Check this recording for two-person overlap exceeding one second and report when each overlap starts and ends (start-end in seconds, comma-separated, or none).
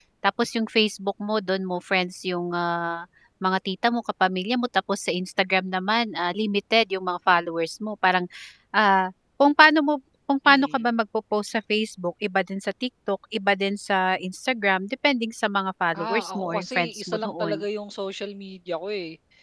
15.9-17.6